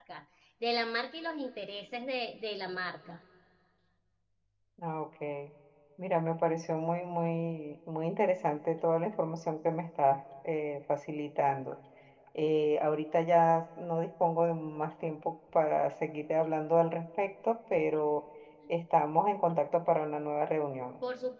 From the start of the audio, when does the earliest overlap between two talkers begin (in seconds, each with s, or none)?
none